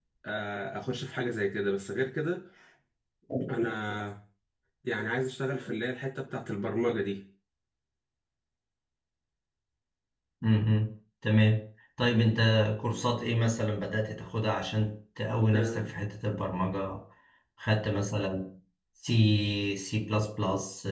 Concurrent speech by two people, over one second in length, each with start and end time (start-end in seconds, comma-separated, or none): none